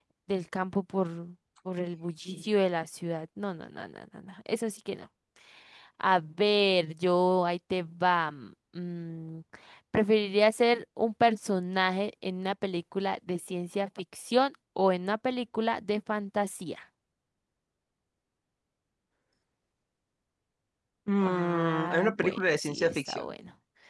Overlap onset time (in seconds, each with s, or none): 21.2 s